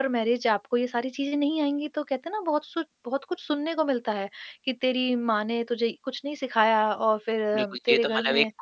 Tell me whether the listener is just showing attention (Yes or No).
No